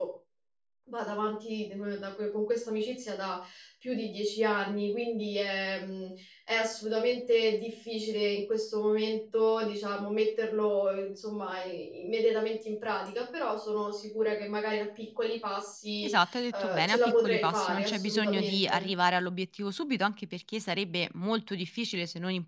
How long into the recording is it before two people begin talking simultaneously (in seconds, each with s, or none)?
16.5 s